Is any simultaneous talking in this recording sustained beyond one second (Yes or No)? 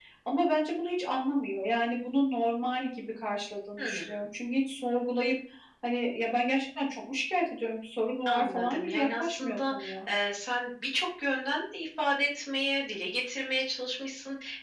Yes